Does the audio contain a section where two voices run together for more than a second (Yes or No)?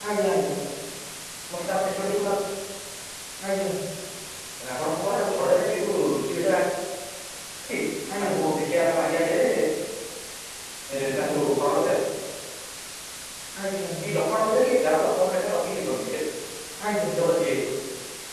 No